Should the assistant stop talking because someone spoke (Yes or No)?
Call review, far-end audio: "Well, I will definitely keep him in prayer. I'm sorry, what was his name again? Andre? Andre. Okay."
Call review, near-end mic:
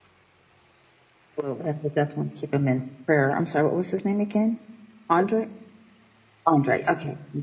No